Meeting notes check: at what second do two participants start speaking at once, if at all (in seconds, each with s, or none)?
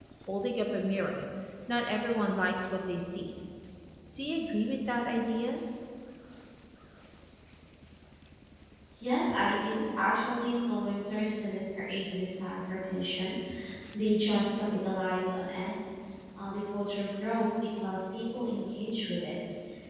none